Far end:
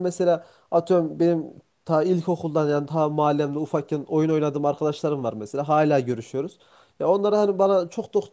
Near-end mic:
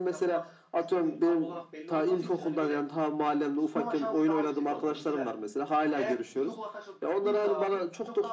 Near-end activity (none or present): present